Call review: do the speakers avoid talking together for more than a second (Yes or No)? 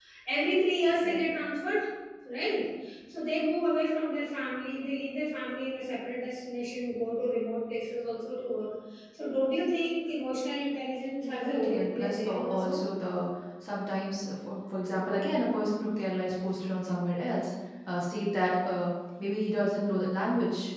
No